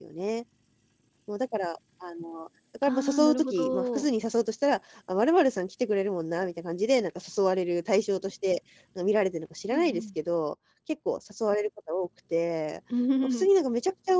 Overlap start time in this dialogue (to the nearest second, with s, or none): 3 s